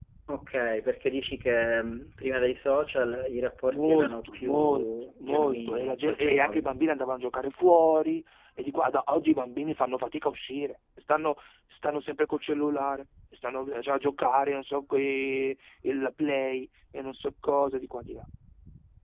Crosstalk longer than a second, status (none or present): present